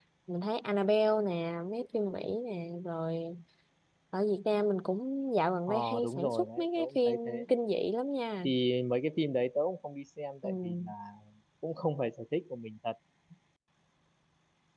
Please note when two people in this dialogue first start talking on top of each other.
5.7 s

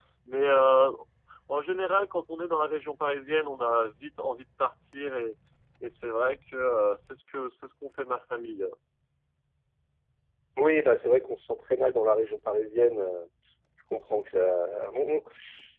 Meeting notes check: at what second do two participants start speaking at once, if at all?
none

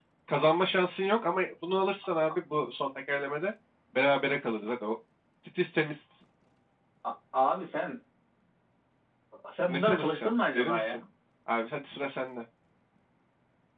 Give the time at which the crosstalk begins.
9.7 s

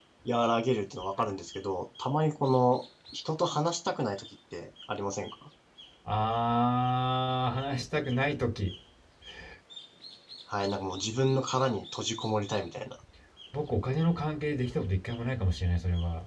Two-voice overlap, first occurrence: none

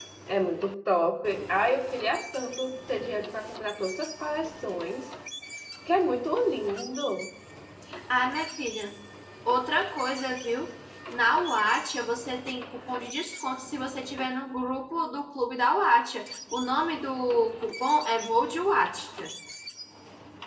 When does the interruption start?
none

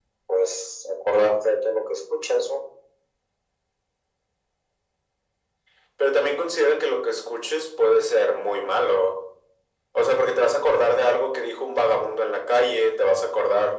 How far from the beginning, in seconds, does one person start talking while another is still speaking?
none

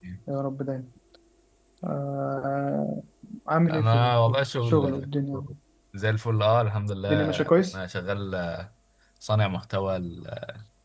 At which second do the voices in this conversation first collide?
3.7 s

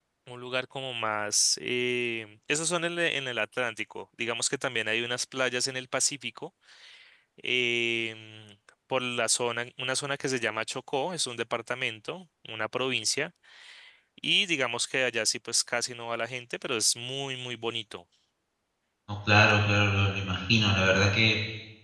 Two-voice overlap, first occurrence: none

